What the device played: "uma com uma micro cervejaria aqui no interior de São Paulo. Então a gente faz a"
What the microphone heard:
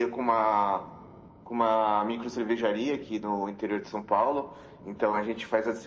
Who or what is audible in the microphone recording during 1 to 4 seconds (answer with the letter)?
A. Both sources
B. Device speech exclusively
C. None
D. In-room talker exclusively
B